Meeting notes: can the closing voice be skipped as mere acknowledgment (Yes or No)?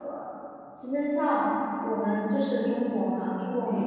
Yes